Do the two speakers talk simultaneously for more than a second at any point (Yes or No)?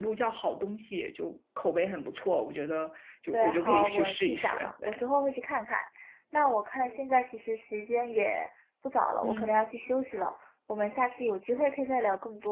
Yes